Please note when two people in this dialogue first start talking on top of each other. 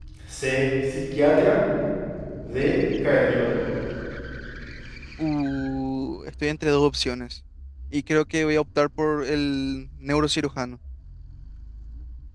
none

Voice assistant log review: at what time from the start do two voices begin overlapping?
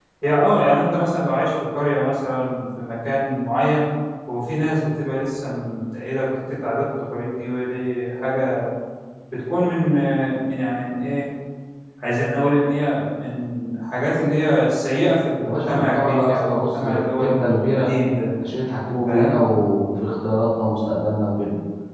15.4 s

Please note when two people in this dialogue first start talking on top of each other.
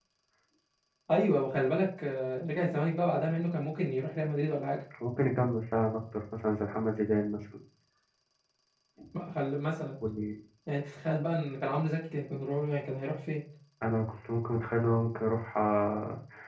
none

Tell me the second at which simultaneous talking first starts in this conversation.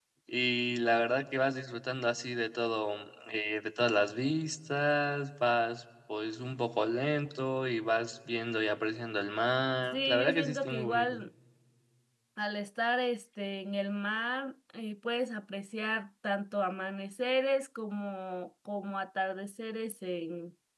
9.9 s

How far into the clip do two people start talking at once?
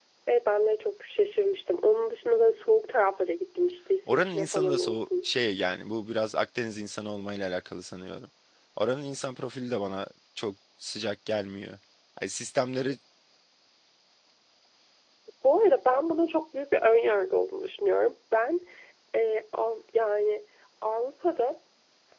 4.1 s

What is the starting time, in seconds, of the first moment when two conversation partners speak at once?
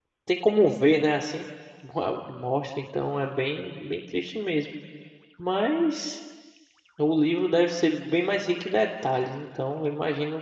none

